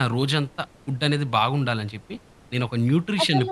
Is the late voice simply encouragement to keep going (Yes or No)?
Yes